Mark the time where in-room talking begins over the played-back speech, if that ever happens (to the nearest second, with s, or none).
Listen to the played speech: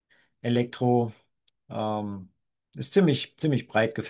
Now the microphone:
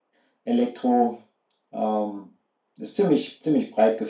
none